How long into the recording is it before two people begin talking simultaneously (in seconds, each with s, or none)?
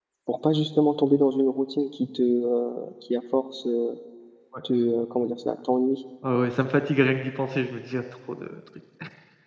none